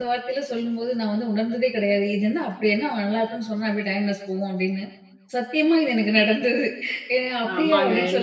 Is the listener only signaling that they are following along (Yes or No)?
No